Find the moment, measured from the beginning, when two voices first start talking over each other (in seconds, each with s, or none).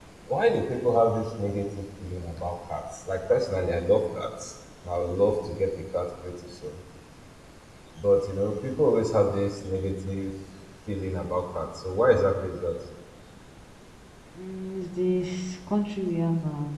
none